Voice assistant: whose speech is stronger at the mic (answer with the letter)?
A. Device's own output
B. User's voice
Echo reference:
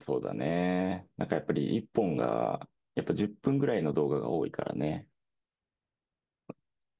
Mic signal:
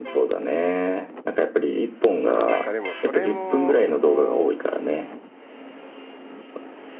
A